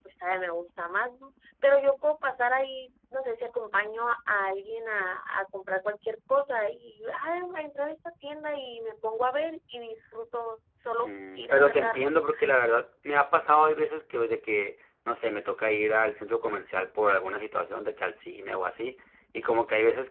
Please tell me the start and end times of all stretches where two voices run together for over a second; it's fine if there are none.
11.0-12.3

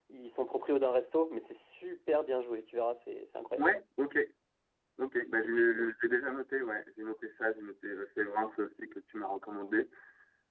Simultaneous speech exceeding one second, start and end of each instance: none

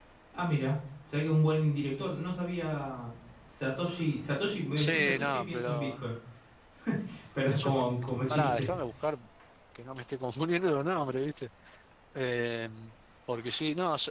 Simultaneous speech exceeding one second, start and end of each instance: 4.8-6.0

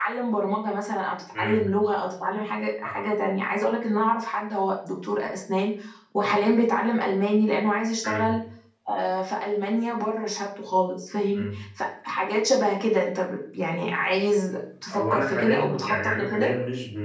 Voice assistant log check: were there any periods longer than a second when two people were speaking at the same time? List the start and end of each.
14.9-16.5

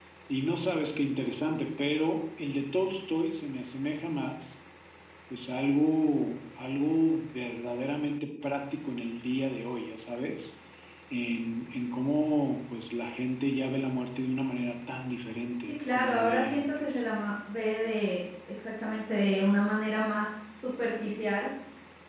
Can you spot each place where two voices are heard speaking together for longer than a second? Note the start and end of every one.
15.6-17.0

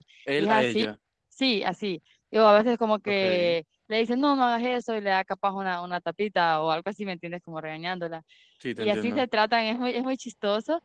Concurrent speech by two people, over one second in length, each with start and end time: none

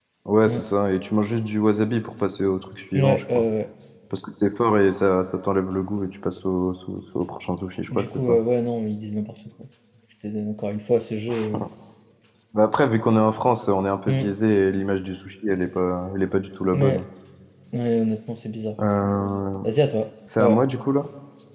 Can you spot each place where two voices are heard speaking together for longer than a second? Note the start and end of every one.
none

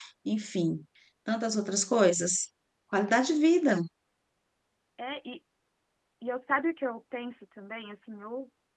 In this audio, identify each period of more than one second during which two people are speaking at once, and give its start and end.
none

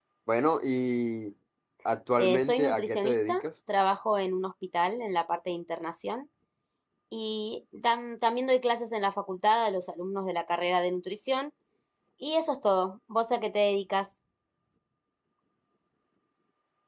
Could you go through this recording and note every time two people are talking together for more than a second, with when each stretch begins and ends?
2.2-3.4

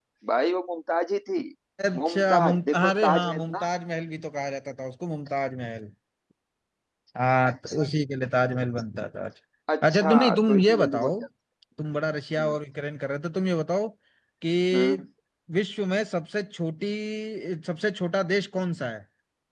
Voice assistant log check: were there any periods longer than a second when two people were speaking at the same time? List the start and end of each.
2.1-3.7, 9.8-11.1

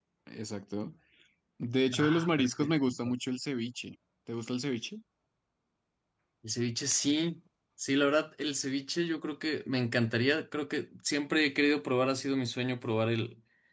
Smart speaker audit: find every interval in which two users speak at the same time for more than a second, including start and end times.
1.9-3.1

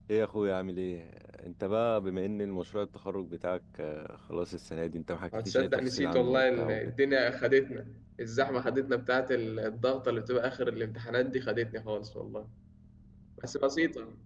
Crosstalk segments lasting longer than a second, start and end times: 5.3-6.9

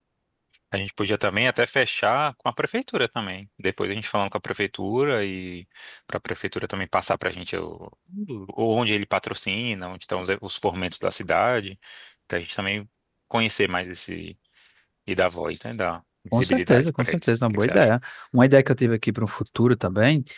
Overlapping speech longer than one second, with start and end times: 16.3-17.9

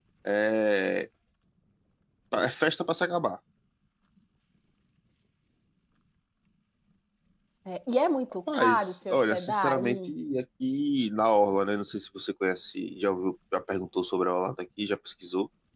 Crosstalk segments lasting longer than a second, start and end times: 8.5-10.1

